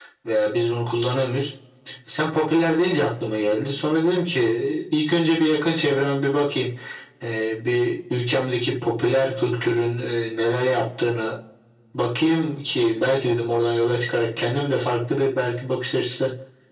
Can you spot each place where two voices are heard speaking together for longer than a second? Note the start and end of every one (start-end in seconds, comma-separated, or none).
none